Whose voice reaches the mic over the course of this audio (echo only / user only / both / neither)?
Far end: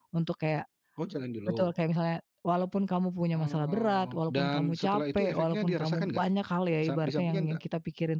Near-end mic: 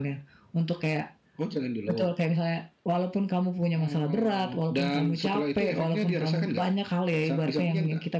echo only